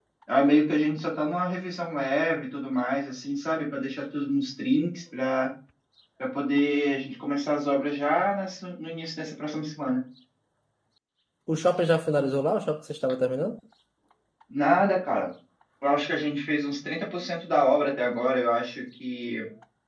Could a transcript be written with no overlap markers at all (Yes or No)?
Yes